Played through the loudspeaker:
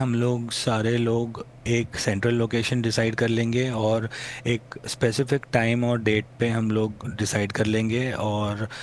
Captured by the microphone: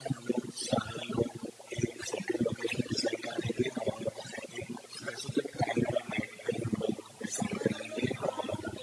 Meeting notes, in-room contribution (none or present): present